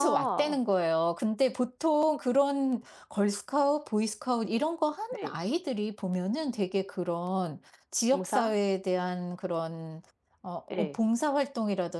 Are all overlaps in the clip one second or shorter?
Yes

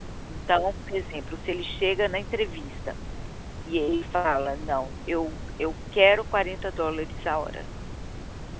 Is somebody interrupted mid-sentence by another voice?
No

